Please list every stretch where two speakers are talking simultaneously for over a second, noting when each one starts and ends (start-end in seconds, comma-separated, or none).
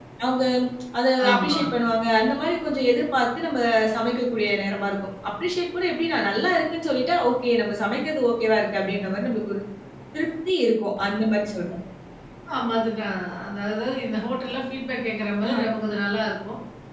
none